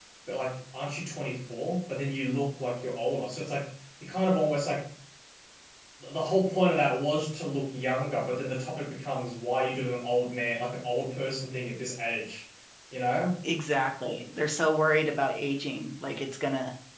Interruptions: none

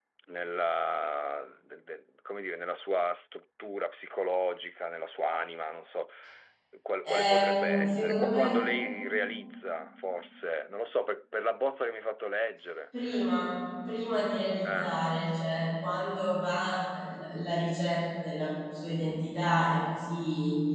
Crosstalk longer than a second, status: present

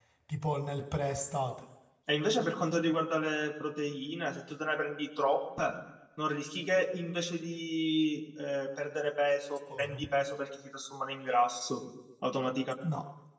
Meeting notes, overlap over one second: none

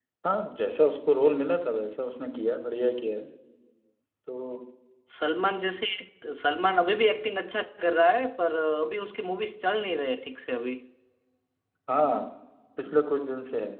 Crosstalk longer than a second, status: none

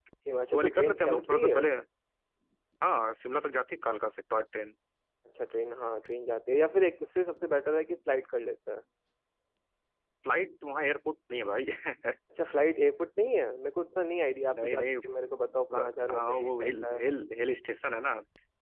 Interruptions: present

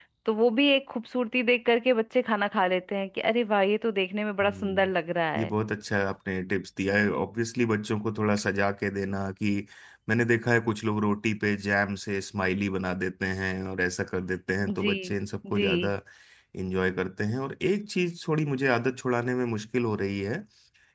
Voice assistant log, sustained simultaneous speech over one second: none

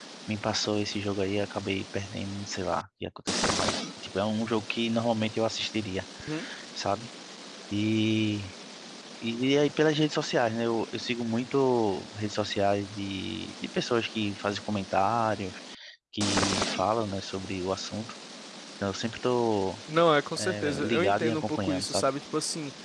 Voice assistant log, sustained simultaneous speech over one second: present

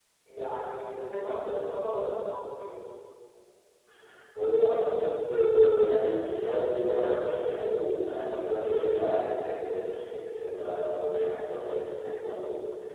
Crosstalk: none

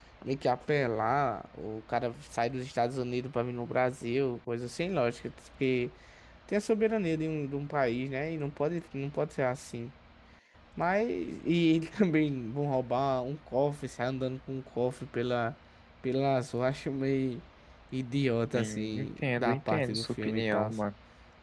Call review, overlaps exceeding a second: present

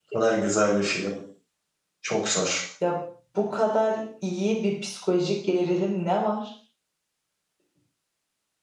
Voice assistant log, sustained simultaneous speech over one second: none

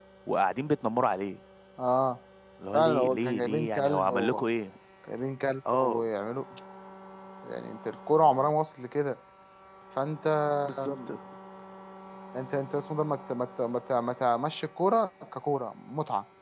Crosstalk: present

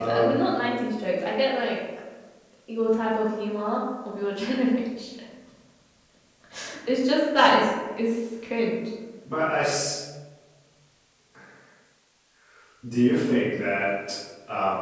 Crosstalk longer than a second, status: none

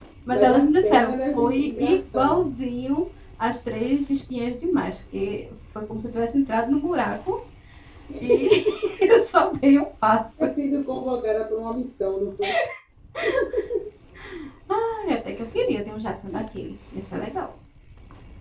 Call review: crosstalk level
present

